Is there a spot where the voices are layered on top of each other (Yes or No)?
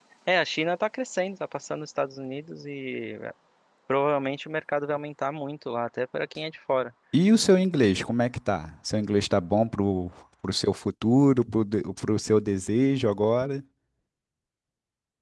No